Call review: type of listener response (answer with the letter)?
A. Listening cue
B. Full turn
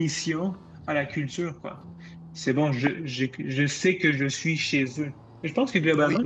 A